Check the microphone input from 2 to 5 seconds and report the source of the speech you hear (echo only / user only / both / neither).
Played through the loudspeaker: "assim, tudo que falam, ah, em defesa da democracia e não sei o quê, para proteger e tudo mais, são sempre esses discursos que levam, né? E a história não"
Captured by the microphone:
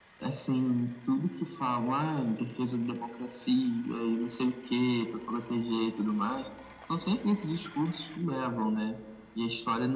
echo only